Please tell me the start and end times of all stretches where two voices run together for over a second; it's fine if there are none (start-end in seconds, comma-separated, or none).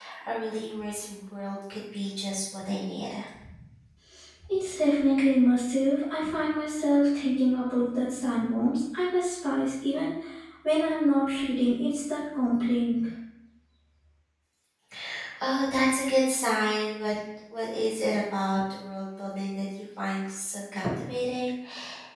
none